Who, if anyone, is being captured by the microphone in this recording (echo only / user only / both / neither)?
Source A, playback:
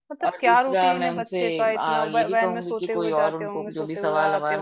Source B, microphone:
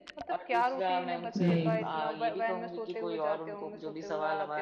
both